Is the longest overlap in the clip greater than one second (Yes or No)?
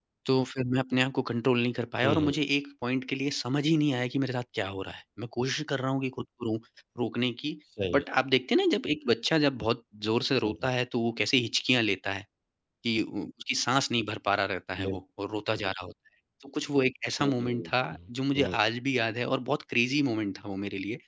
Yes